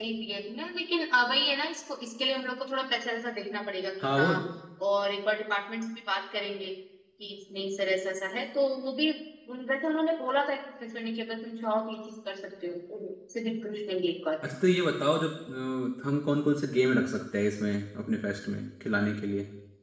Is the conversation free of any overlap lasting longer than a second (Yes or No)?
Yes